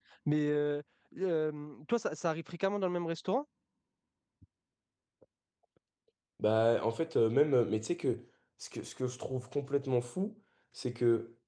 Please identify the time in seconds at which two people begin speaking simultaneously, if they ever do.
none

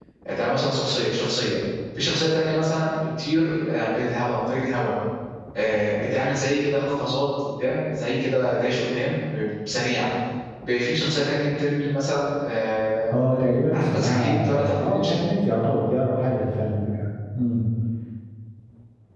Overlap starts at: 13.7 s

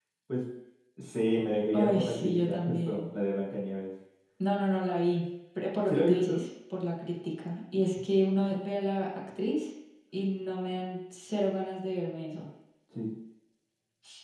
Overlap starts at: 1.7 s

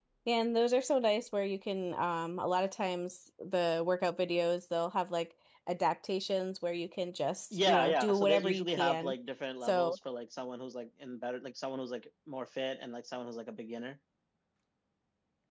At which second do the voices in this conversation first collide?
7.6 s

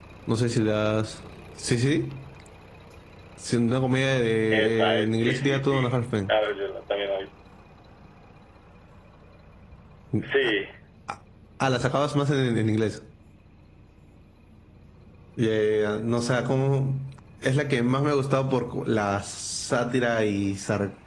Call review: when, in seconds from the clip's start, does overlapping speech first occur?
4.5 s

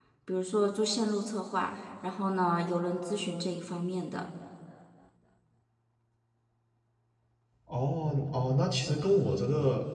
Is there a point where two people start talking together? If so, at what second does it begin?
none

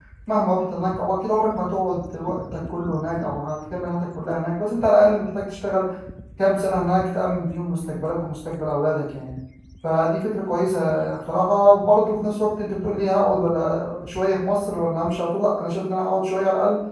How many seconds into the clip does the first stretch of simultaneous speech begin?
none

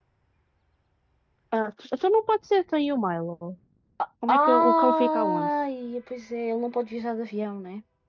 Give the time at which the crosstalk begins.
4.3 s

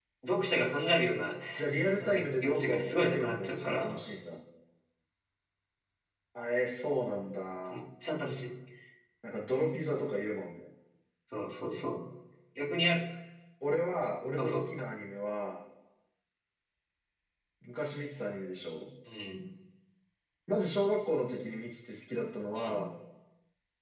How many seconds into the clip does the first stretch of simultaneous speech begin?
2.0 s

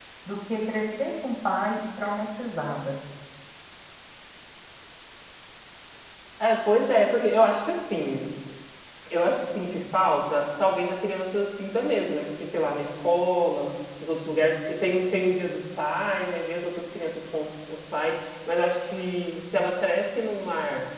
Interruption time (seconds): none

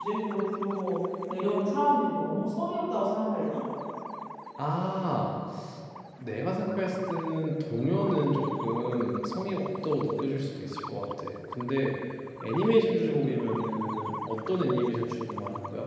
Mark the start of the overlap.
none

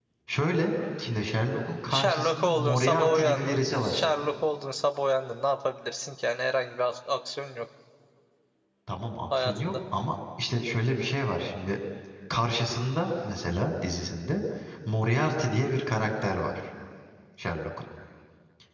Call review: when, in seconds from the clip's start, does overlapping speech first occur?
1.9 s

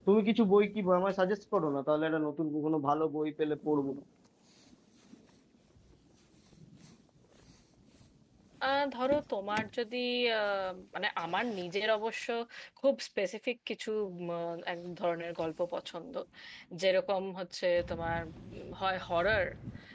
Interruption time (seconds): none

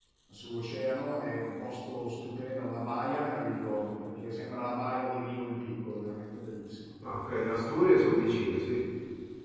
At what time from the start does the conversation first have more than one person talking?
none

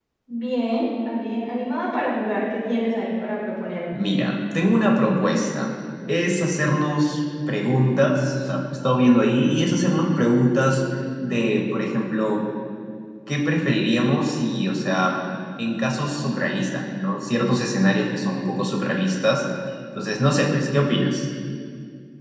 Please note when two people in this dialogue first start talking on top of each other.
none

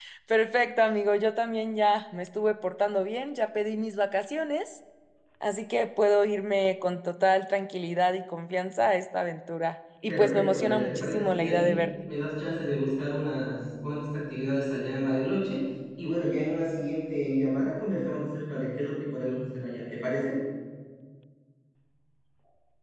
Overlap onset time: 10.1 s

